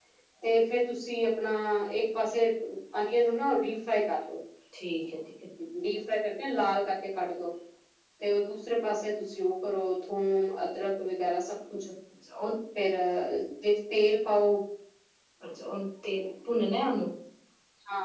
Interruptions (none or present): none